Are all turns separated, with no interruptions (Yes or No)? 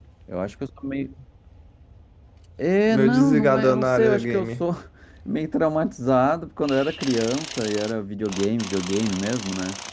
No